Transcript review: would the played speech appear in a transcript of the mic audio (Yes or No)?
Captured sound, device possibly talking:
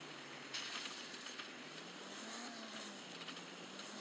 No